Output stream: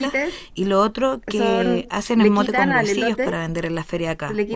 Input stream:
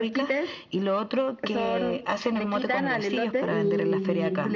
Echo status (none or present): present